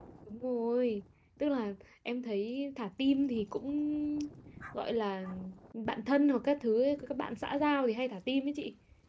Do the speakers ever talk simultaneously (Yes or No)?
No